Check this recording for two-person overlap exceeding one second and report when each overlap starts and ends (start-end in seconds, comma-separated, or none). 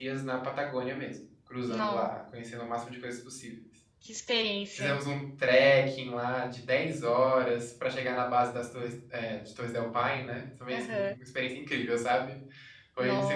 none